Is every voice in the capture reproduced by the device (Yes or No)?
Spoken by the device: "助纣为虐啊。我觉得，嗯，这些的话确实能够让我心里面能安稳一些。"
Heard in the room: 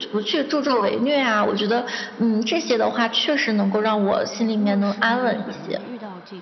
No